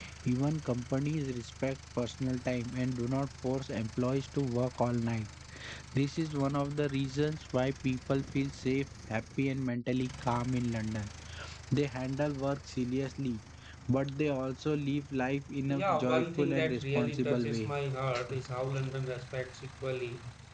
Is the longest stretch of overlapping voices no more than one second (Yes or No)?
No